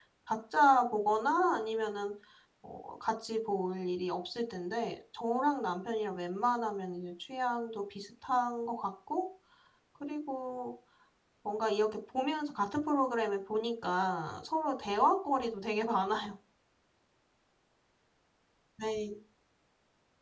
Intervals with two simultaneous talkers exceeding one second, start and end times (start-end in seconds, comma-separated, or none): none